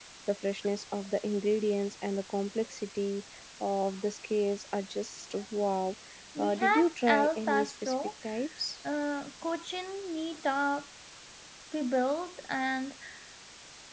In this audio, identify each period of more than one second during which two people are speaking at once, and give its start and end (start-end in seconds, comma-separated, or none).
6.4-7.9